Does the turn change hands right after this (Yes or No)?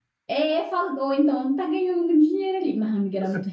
No